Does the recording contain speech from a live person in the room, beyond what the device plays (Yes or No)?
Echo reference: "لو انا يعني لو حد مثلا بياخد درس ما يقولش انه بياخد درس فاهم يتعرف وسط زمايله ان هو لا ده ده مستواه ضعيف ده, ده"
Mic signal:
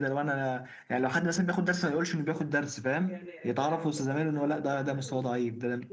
Yes